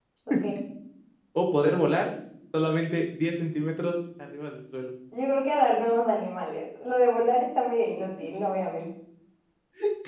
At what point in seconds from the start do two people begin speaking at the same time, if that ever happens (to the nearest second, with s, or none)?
none